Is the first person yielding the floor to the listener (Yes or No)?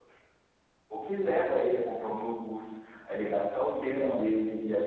No